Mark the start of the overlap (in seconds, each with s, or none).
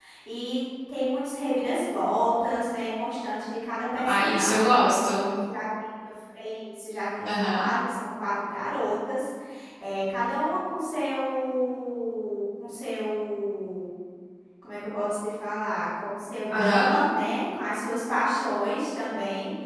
4.0 s